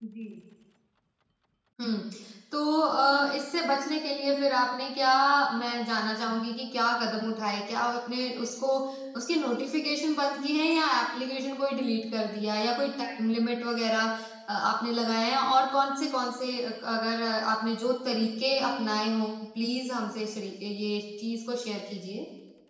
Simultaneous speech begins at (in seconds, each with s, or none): none